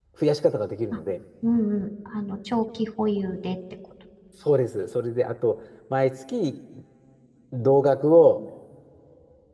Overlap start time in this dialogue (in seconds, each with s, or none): none